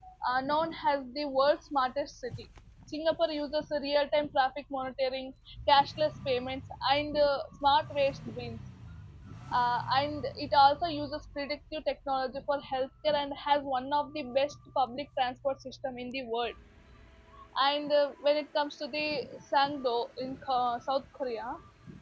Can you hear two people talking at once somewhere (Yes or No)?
No